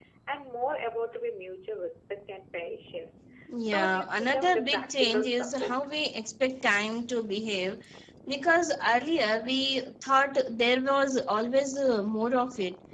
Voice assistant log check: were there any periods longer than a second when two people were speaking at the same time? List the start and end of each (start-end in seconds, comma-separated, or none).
3.7-5.8